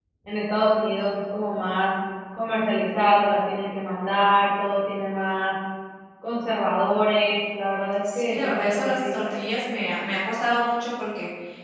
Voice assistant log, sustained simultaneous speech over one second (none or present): present